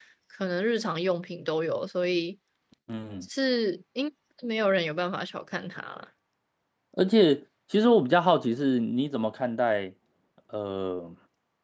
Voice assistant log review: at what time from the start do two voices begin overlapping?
none

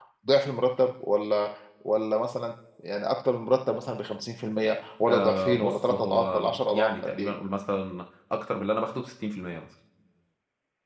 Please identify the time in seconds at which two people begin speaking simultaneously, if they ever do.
5 s

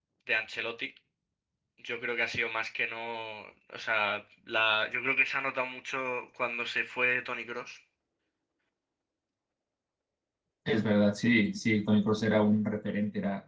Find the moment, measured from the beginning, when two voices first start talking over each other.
none

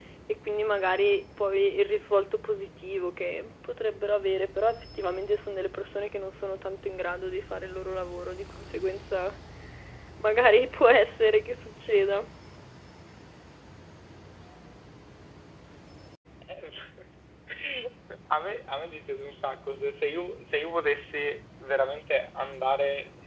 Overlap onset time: none

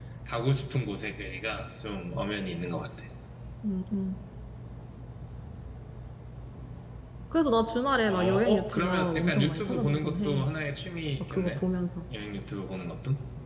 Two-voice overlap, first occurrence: 8 s

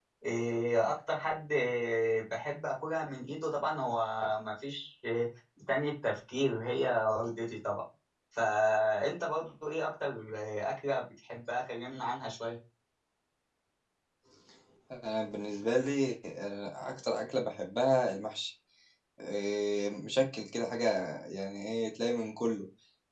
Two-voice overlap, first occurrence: none

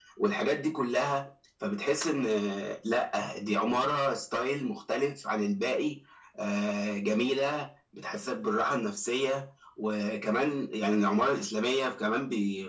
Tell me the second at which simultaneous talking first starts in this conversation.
none

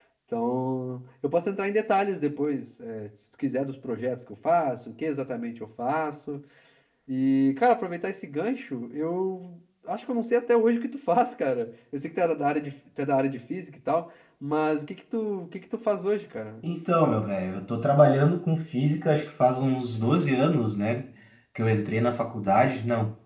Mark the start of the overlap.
none

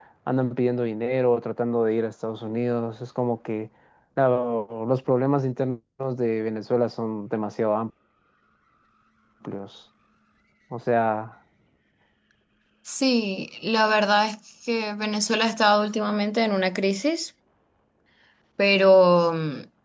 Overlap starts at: none

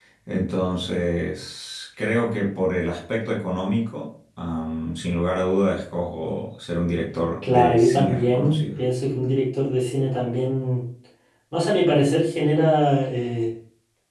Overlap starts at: 7 s

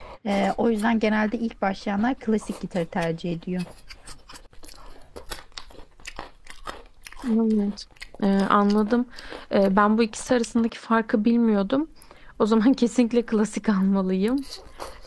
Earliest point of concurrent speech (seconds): none

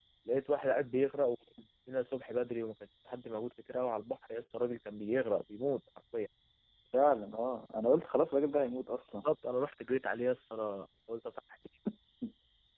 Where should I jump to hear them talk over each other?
none

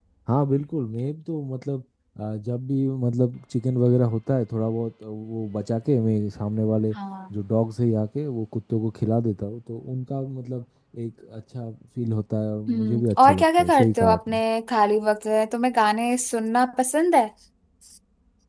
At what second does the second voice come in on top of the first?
13 s

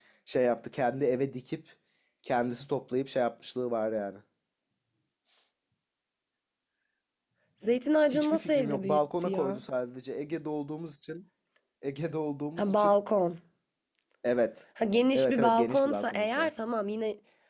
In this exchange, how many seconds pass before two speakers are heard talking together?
8 s

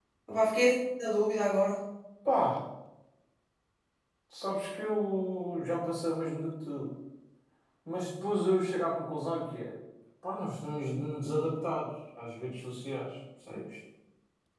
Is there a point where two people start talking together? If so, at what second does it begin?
none

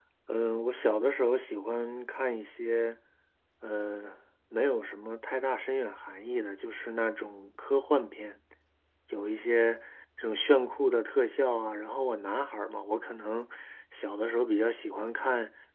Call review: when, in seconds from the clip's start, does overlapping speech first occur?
none

